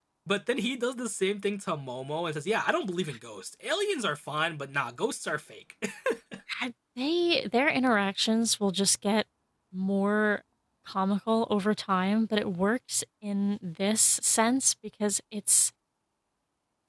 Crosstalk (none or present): none